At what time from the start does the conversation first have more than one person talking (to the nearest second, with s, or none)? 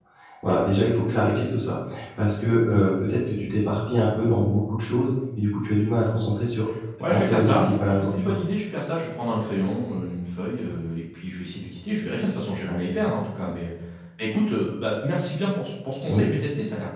7 s